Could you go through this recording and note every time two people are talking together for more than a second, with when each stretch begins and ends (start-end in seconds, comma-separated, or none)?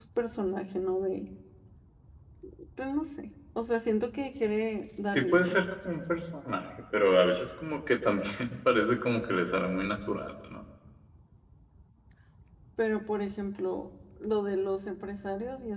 none